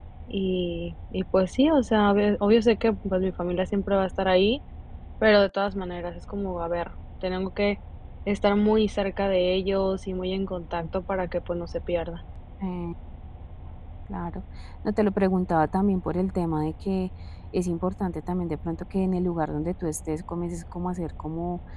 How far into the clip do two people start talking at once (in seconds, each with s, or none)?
none